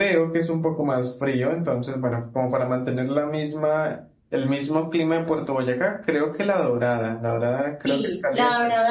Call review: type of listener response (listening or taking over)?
taking over